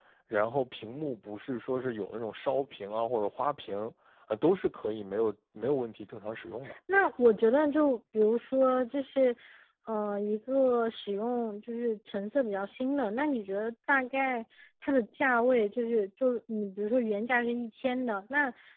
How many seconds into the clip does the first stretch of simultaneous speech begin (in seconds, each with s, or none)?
none